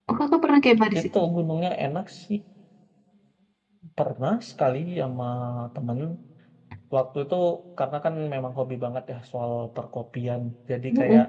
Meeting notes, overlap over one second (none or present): none